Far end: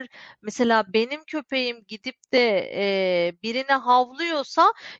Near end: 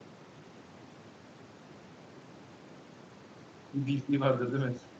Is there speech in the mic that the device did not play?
Yes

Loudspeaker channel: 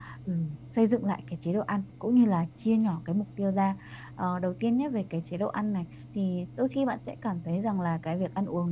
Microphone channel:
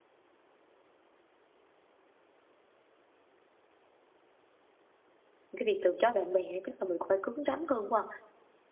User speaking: Yes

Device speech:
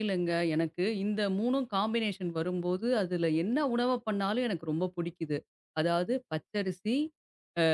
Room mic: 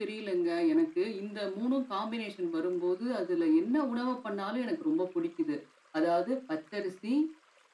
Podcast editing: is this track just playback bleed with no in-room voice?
Yes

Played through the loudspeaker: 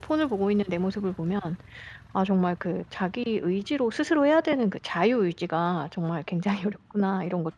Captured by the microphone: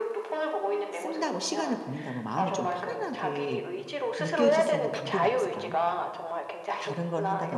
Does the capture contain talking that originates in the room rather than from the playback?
Yes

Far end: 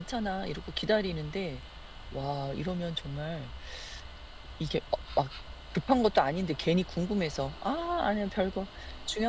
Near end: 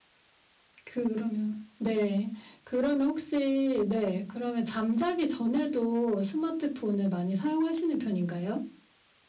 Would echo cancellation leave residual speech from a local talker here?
Yes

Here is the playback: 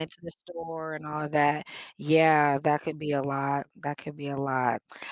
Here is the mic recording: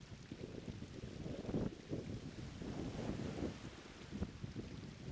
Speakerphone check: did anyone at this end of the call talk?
No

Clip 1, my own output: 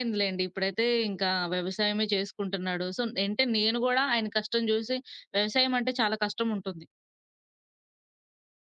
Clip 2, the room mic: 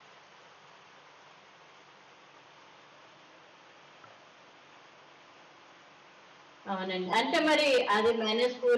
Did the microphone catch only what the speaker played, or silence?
No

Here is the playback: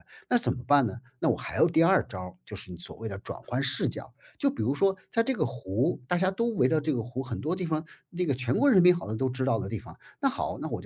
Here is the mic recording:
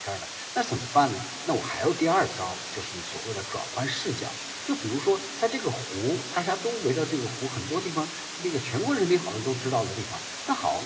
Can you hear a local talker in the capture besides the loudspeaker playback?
No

